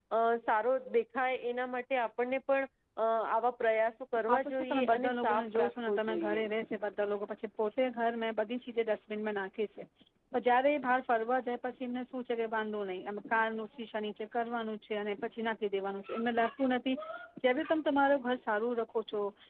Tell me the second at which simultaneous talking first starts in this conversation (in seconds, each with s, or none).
4.3 s